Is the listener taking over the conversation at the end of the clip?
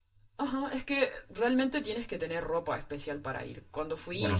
No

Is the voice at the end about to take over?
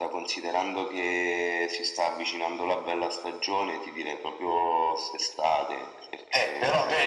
Yes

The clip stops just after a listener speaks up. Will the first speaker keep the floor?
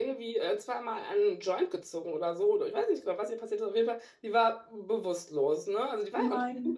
Yes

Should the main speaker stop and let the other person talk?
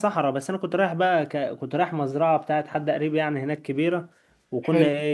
No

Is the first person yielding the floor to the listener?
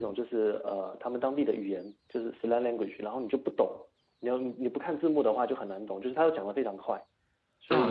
Yes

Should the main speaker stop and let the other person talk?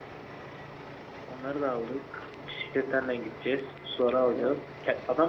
No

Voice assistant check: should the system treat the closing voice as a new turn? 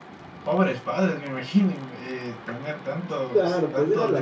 Yes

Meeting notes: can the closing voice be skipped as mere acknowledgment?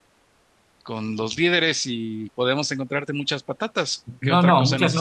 No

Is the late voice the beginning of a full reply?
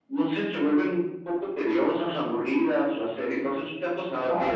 Yes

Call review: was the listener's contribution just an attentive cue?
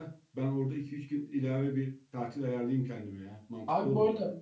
No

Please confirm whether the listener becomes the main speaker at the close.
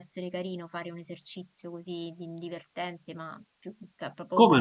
No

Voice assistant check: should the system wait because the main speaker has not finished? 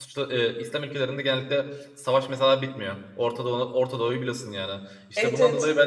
Yes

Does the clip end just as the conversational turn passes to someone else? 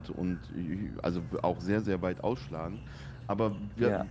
No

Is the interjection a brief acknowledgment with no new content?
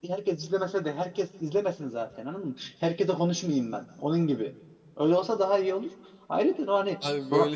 No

